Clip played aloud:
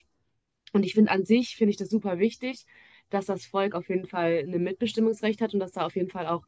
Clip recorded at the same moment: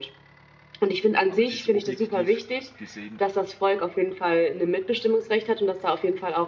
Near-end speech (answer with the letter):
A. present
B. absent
A